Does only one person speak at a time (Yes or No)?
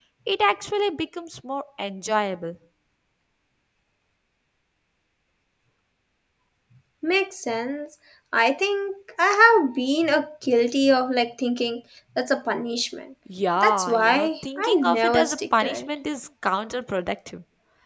No